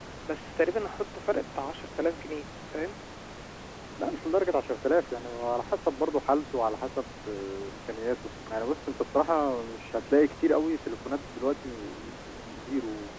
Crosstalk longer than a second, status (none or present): none